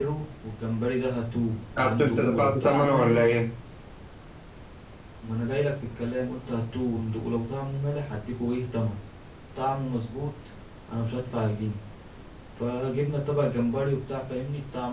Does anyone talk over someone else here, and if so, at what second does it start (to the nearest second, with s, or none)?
2 s